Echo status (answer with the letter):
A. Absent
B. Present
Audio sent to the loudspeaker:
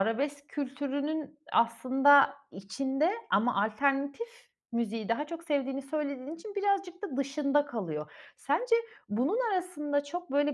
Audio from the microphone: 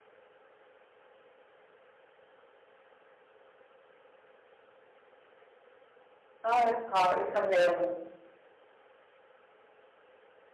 A